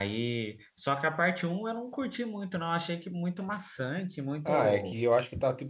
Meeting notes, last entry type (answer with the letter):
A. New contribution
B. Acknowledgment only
A